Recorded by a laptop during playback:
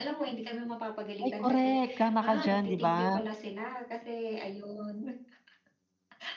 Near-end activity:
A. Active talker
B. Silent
A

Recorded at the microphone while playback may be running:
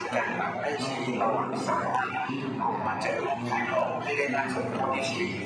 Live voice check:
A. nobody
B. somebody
B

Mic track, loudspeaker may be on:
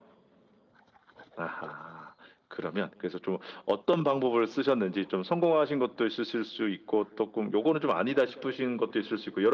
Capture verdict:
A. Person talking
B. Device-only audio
B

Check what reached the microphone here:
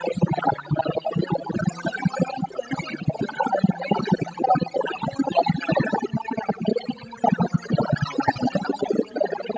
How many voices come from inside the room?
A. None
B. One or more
A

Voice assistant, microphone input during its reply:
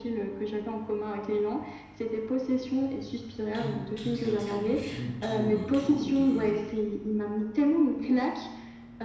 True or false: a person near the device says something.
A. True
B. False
A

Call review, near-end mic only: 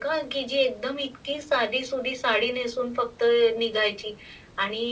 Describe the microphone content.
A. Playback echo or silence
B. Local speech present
A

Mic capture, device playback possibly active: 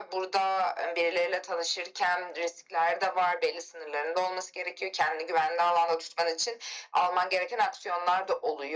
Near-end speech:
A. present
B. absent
B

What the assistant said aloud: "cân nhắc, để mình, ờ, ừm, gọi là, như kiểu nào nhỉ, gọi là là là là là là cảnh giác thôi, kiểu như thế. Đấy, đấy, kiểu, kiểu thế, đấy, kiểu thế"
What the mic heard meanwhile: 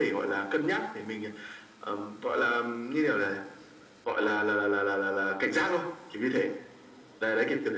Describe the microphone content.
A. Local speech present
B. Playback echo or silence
B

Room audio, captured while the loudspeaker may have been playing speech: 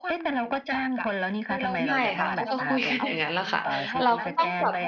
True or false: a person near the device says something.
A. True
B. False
A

